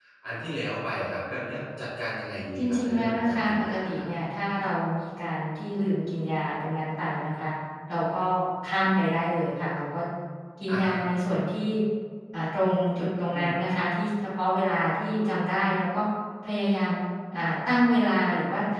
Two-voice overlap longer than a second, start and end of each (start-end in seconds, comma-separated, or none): 2.6-4.1